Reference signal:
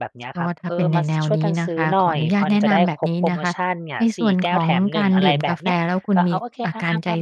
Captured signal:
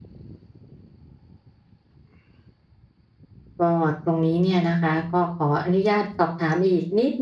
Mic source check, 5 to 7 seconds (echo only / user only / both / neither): user only